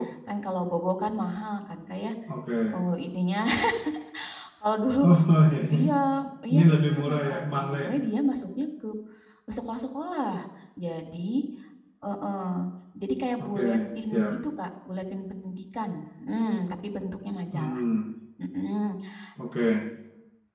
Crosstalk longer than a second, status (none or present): present